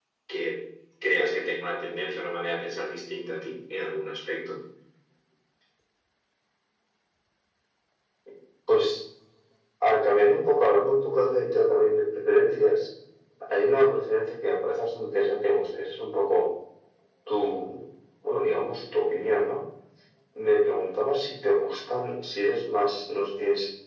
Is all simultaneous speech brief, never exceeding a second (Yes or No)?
Yes